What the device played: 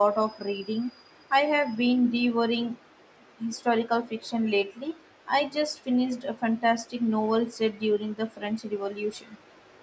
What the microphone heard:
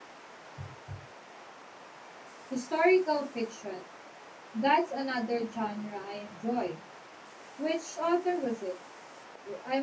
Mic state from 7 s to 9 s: user only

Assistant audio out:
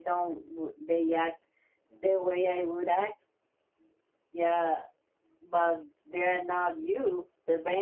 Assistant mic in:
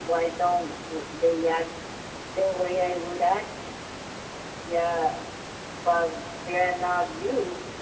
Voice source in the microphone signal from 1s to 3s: echo only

